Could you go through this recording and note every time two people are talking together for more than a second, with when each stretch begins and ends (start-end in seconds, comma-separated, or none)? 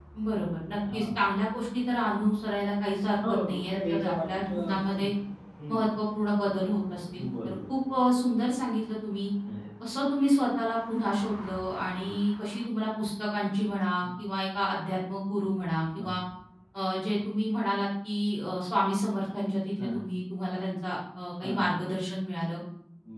3.2-5.0